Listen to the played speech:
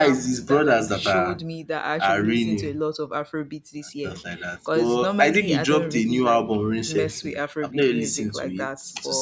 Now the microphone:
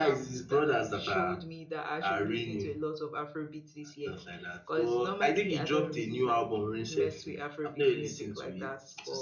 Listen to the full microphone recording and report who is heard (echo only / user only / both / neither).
echo only